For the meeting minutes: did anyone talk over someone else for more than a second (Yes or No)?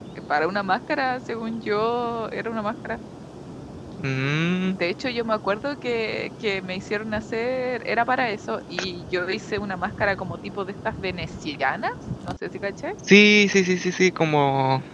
No